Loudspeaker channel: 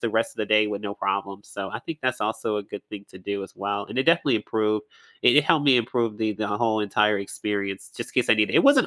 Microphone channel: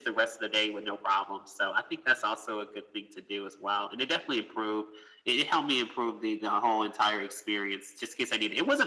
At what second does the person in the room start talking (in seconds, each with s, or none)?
none